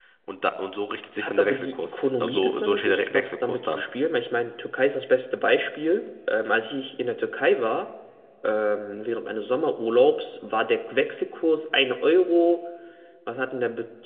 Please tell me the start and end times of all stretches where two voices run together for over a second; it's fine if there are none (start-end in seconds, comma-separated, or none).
1.2-3.9